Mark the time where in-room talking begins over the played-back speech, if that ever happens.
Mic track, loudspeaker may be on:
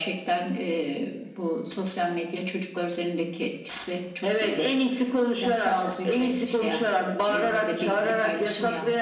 none

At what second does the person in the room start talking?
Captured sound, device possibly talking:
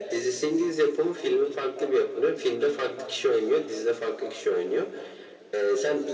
none

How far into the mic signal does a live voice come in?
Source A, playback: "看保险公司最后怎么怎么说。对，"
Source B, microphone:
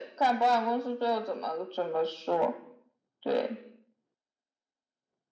none

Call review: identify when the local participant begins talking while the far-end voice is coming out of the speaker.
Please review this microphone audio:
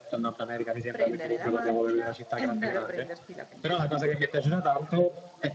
0.9 s

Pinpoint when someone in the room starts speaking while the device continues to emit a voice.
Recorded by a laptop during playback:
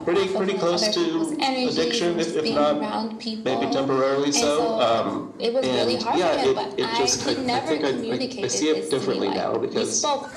none

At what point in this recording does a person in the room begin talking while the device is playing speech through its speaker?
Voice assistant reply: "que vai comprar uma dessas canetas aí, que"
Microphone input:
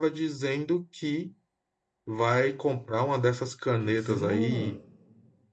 3.8 s

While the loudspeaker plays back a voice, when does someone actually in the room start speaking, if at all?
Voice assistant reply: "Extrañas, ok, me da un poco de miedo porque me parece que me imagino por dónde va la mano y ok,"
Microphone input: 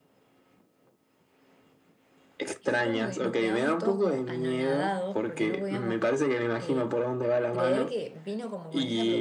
2.6 s

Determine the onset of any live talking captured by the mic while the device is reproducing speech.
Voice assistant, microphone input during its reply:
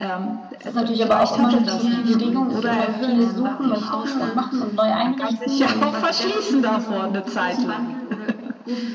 0.6 s

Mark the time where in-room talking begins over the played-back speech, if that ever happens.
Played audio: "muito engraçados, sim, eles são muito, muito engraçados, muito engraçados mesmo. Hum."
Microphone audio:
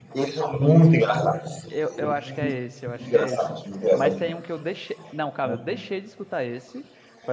1.7 s

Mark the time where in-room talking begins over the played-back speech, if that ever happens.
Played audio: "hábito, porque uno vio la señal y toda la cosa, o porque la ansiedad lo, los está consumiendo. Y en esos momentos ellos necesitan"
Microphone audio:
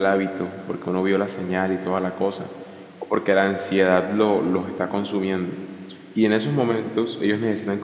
none

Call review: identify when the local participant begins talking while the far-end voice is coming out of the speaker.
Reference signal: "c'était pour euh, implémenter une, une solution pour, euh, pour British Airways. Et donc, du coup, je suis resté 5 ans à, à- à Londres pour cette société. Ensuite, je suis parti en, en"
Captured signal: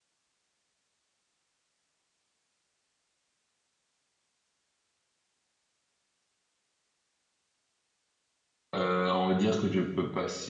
8.8 s

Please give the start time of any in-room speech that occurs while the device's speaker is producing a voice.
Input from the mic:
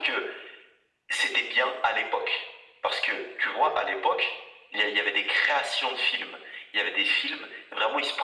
none

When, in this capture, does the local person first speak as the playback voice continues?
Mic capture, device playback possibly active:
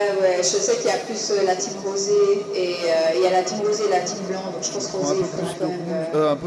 4.6 s

